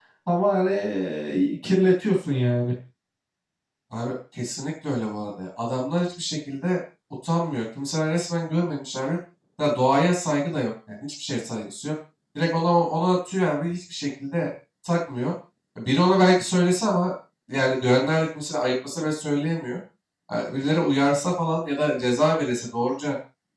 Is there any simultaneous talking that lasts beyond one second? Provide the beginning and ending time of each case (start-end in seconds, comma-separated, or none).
none